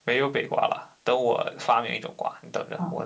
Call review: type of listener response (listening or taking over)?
taking over